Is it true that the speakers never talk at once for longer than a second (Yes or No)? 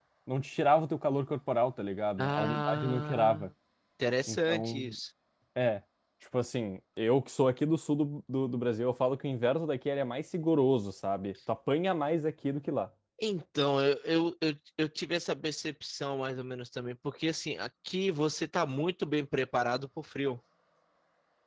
No